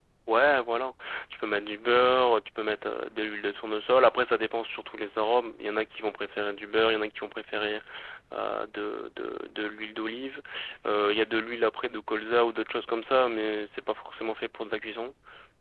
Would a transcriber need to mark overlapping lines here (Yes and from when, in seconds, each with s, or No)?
No